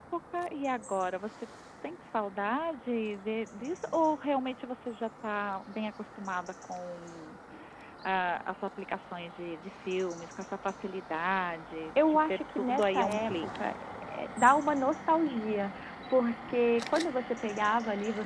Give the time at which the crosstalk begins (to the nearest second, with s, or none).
12 s